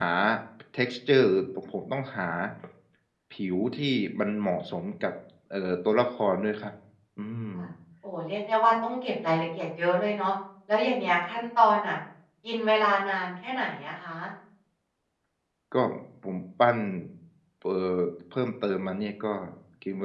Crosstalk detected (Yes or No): No